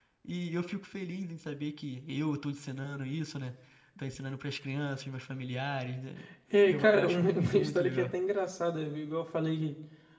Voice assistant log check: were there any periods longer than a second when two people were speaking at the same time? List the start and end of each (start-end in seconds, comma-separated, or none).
6.7-8.1